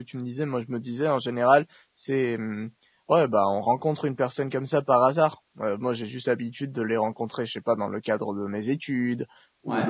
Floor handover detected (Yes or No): No